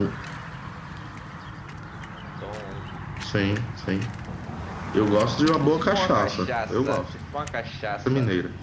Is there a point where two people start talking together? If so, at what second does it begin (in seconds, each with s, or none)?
5.7 s